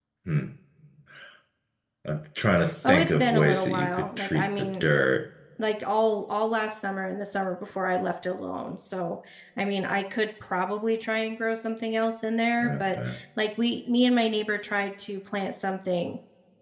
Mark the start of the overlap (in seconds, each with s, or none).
2.8 s